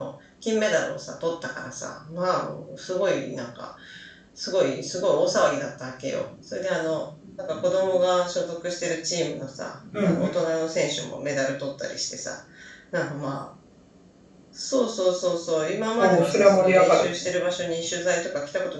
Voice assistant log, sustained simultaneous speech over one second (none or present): present